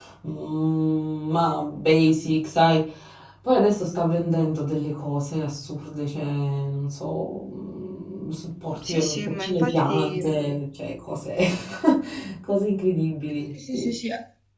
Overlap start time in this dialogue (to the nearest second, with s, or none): 9 s